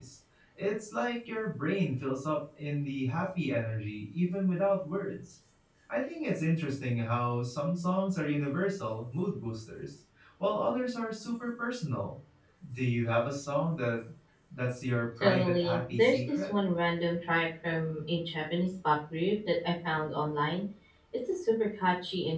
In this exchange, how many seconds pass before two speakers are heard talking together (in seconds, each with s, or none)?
15.2 s